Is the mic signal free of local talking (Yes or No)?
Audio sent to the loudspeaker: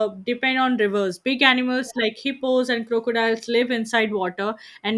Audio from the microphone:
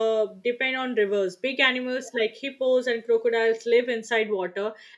Yes